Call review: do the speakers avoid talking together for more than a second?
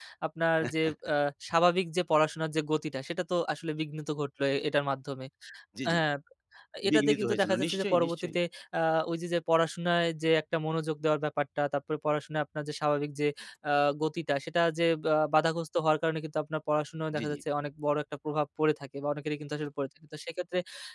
No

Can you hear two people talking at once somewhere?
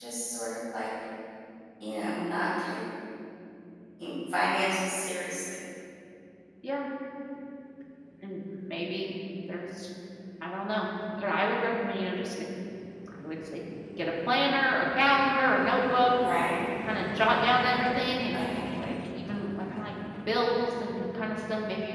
No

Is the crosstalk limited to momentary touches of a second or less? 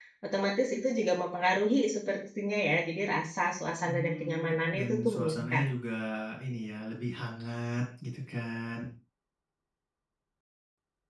No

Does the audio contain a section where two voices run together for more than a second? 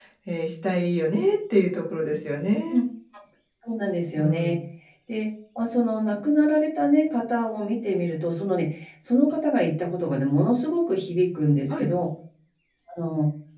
No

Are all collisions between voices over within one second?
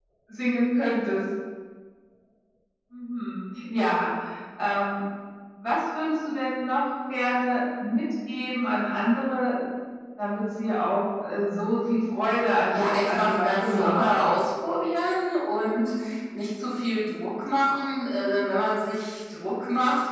No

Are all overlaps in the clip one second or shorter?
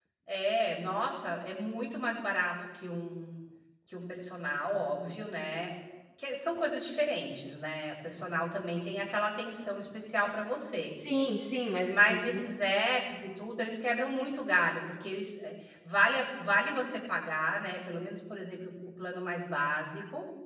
Yes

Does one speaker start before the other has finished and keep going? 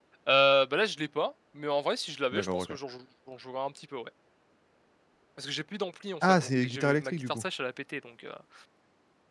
Yes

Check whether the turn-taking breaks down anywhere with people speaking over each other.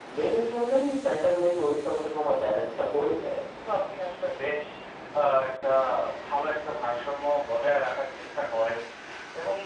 No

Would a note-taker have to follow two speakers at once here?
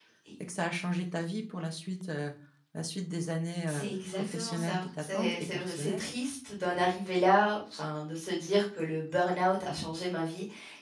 Yes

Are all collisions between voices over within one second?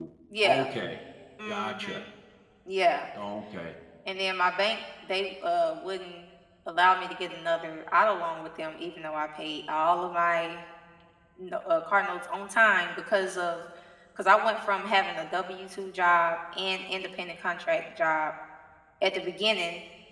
Yes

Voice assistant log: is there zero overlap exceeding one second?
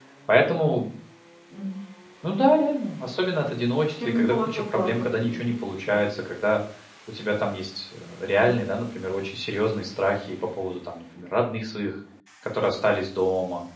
No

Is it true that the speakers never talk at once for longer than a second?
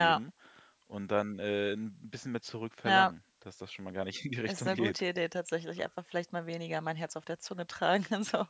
Yes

